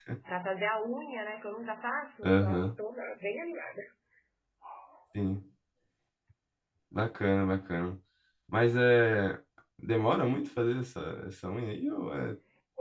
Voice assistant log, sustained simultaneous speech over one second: none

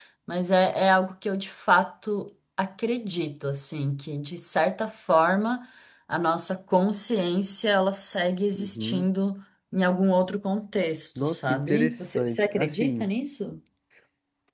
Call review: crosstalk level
present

